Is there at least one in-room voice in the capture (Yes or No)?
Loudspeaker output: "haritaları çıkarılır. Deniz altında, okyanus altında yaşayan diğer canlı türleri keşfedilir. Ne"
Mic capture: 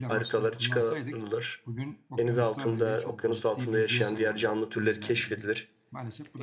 Yes